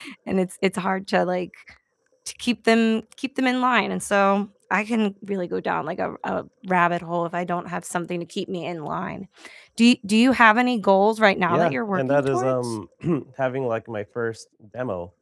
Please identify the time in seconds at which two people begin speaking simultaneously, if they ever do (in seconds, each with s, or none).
11.5 s